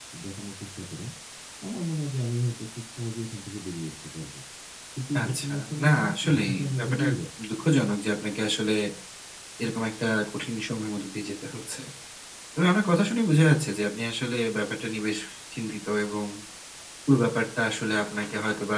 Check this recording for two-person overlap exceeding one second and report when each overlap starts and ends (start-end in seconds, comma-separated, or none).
5.2-7.1